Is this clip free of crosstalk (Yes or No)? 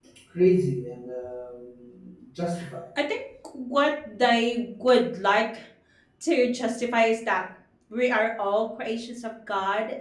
Yes